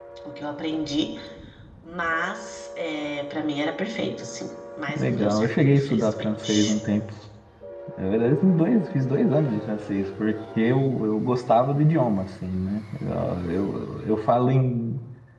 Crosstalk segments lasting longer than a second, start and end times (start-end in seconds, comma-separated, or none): 4.9-6.7